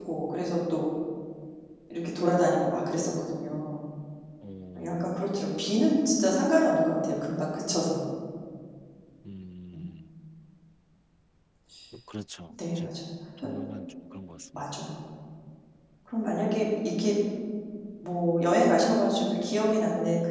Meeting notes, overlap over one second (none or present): none